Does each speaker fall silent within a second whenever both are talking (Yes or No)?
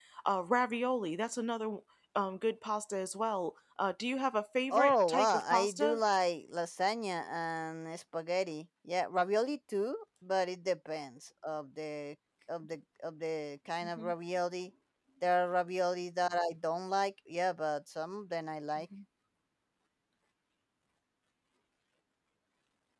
No